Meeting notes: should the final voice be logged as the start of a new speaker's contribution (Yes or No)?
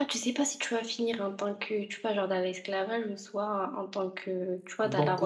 Yes